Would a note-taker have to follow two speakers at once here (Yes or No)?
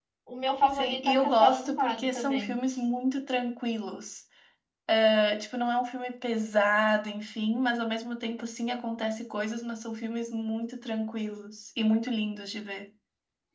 Yes